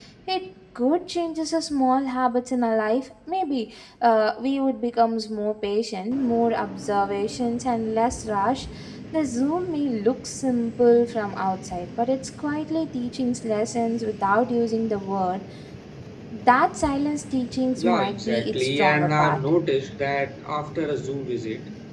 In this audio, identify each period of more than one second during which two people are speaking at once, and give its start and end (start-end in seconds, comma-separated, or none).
17.8-19.4